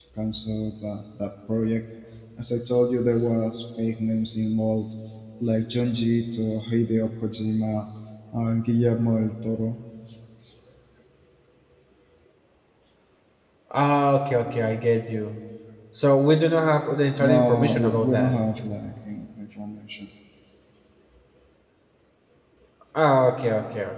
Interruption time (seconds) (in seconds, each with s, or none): 17.2 s